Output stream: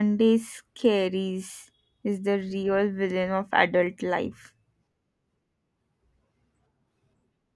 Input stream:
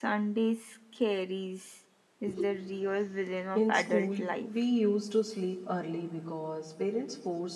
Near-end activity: present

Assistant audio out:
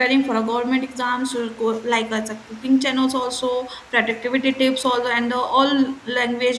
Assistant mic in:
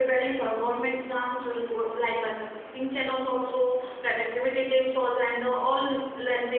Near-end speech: none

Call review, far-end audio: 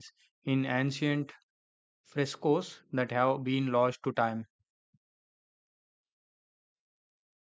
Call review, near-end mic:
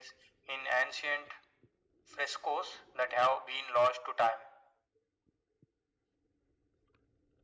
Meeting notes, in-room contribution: none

